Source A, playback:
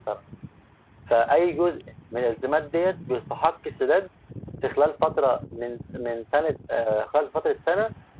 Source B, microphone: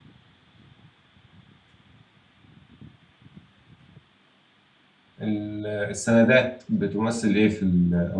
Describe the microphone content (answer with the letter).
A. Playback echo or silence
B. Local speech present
B